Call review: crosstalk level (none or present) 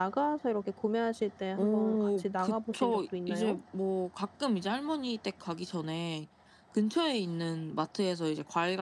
present